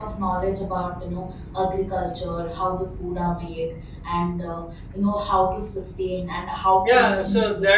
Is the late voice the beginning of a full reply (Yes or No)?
Yes